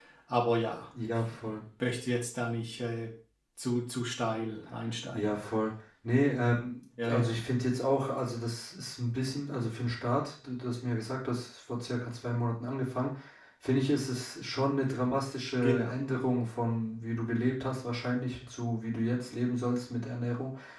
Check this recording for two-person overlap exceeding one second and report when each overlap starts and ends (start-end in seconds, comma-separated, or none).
none